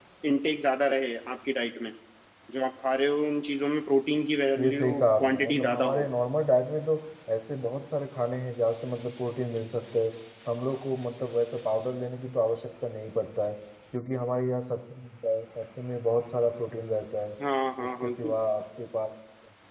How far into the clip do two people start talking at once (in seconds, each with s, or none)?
4.6 s